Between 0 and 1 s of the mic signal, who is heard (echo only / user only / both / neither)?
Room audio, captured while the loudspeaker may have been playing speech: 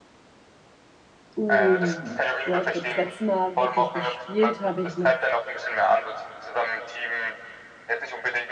neither